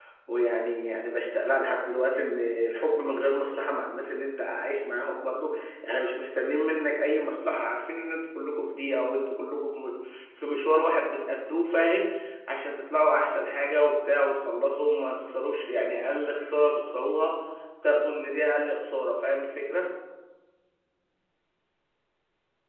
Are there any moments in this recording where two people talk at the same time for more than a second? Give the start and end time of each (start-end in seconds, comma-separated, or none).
none